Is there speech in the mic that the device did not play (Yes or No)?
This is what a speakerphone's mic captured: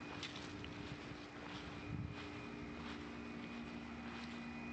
No